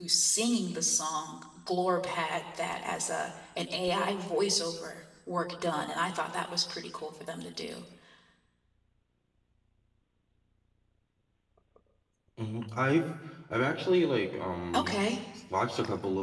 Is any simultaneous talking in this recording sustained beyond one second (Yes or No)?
No